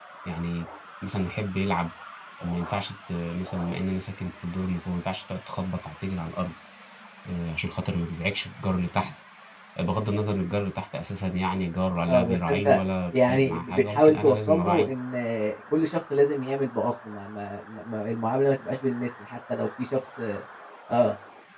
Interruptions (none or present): present